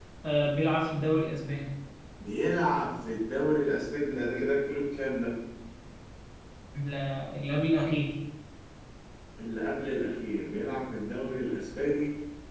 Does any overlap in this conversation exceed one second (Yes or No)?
No